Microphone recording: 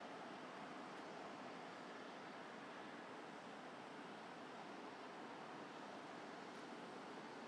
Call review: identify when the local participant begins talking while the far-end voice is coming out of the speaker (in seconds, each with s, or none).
none